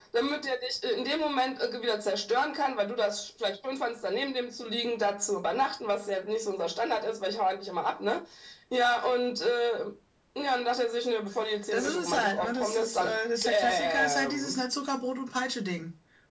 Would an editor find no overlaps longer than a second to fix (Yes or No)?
No